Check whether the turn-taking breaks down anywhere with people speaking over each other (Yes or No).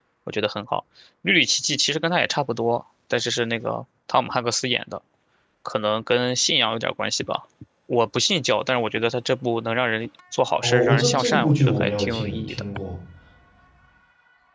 Yes